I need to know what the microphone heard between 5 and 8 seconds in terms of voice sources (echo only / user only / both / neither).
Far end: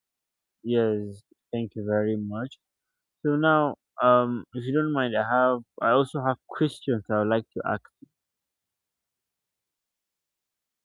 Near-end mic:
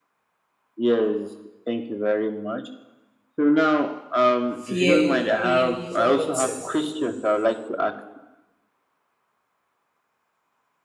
both